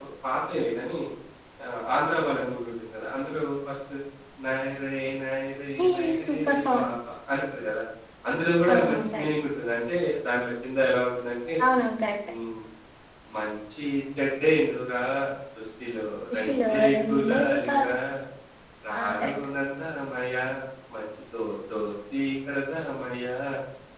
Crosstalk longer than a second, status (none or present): present